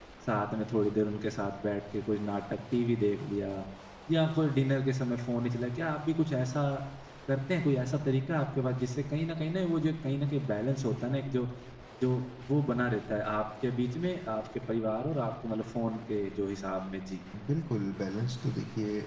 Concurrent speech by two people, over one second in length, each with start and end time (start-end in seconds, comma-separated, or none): none